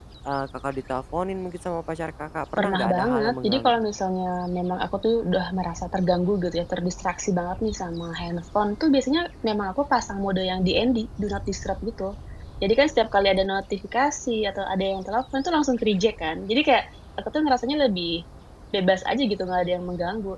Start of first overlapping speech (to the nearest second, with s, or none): 3 s